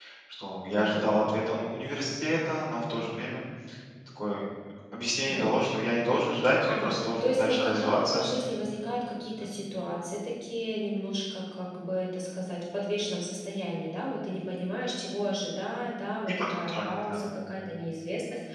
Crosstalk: present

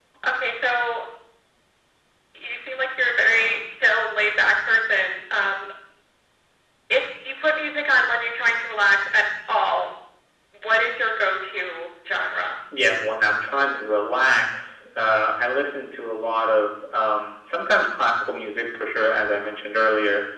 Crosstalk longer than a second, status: none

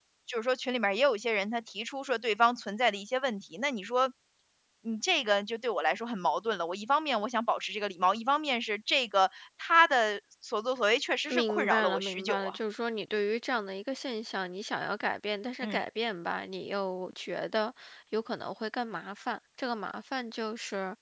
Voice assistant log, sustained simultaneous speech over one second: present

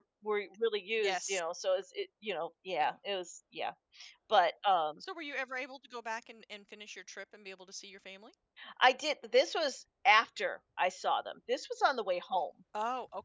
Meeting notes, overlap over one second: none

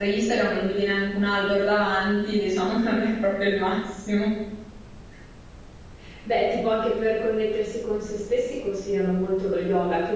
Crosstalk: none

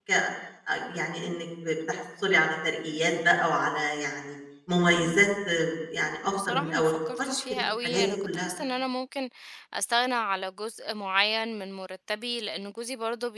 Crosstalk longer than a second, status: present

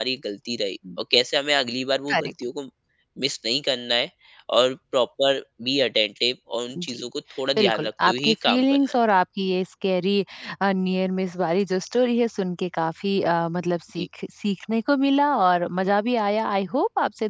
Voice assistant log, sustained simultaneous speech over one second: present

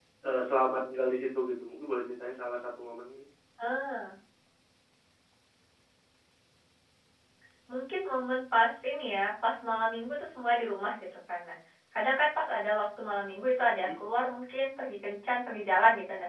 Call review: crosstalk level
none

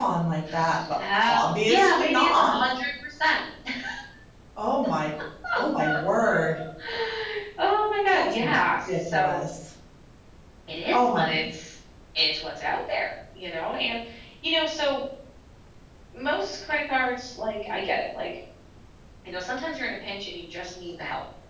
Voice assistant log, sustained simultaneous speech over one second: present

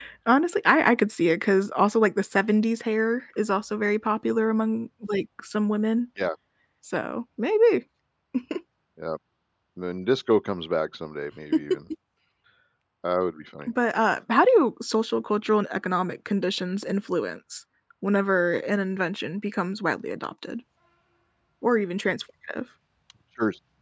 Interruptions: none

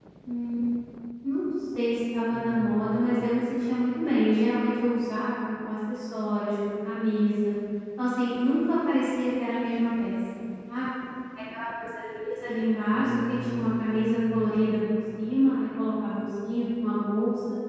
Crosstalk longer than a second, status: present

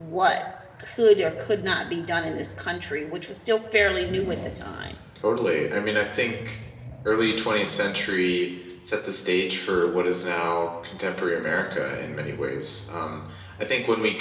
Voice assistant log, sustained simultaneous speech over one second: none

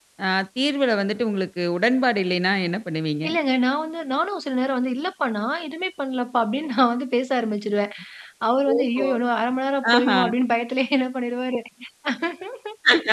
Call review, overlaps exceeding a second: none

